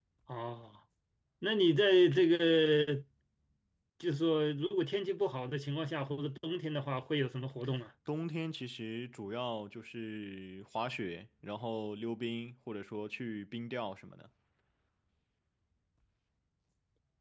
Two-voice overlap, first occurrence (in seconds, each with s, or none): none